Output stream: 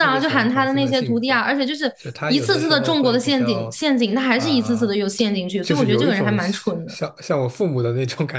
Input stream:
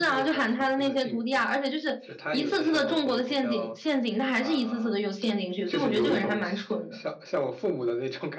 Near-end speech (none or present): present